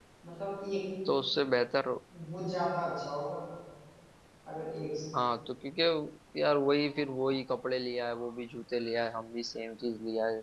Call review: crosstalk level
none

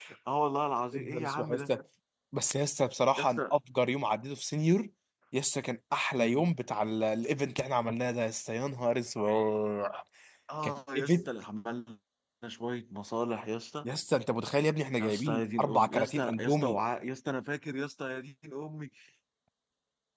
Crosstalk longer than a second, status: present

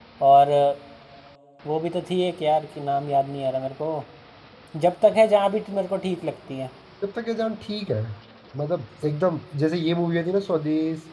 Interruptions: none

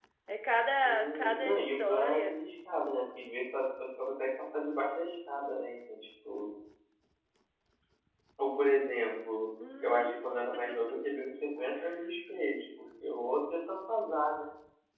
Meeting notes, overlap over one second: present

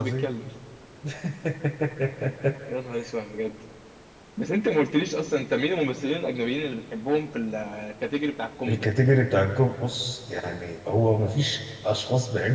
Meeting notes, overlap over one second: none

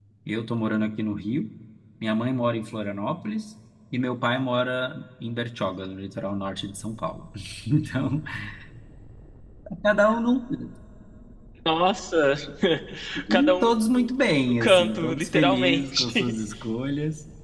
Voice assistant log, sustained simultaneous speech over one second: present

